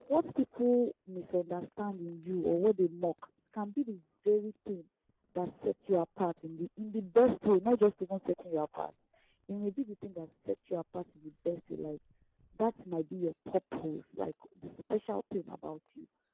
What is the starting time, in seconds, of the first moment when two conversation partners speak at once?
none

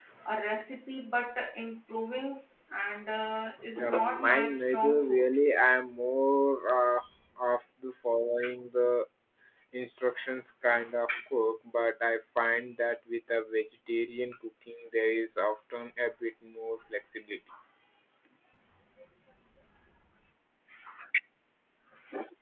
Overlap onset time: 3.8 s

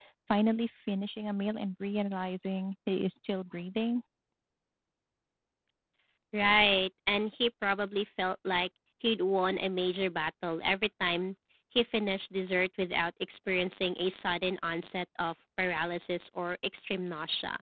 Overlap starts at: none

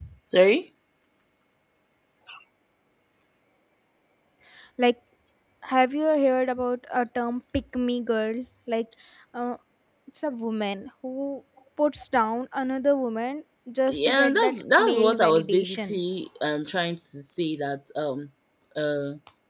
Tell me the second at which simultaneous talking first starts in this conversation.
13.9 s

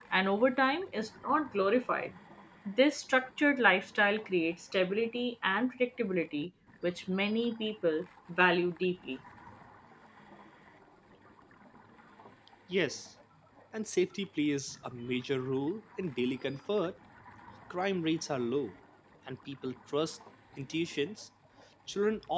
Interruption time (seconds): none

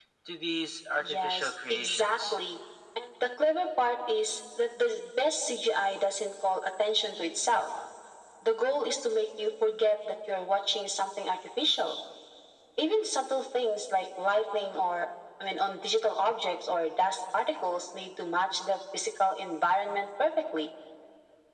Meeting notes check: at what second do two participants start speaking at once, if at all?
1.0 s

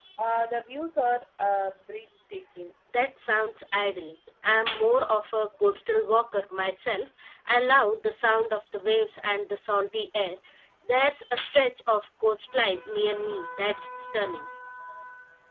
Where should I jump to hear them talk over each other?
none

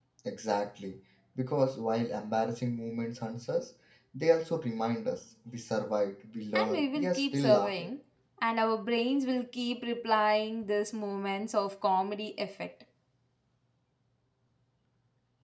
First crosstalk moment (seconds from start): 6.6 s

